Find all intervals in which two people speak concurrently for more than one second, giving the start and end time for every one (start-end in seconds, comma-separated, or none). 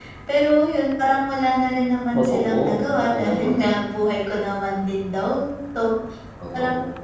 2.1-3.7